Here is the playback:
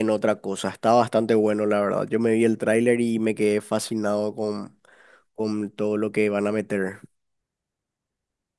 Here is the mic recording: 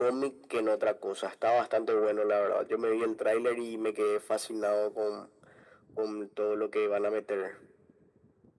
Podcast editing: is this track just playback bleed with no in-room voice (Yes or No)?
Yes